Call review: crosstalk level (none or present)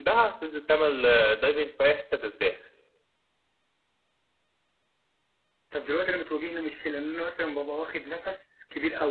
none